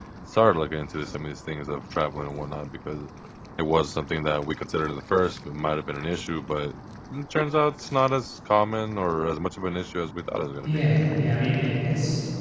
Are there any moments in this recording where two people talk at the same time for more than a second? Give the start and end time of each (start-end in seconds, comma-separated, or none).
none